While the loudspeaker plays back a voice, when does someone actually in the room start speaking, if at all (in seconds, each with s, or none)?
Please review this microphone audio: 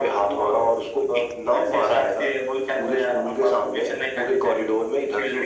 none